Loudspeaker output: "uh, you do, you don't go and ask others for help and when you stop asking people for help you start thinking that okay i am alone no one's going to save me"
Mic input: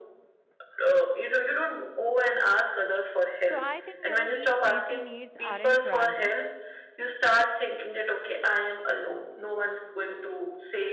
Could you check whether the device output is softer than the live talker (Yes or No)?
No